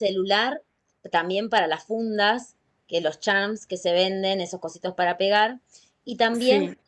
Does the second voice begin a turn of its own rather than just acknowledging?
No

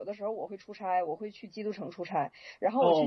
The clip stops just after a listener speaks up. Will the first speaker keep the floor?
Yes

